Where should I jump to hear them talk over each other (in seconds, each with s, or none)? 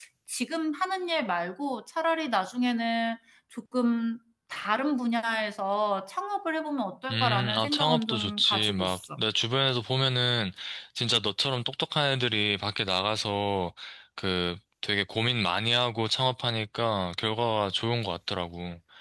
7.1 s